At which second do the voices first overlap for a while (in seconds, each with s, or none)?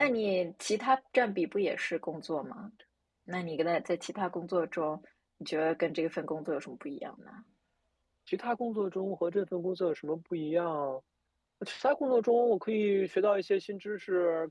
none